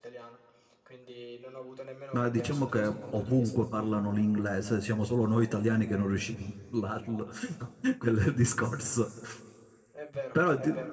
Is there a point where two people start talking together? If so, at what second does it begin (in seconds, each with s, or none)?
2.1 s